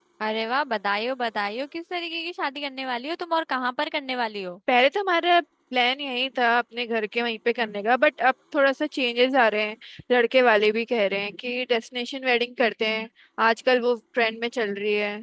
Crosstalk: none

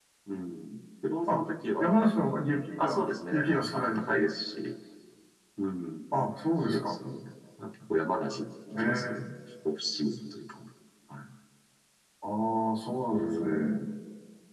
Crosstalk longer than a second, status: present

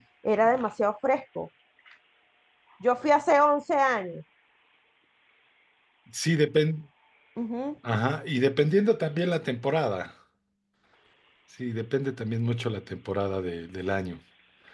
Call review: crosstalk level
none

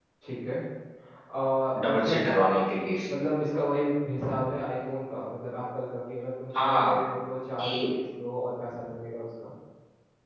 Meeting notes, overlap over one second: none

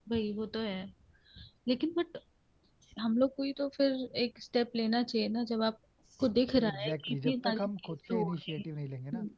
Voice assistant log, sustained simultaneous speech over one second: present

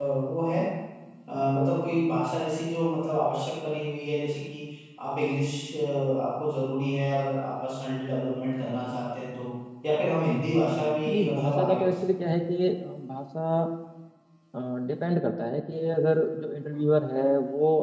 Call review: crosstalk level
present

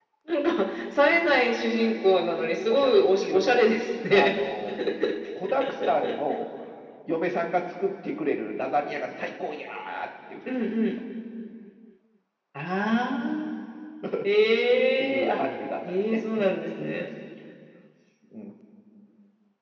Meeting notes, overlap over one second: present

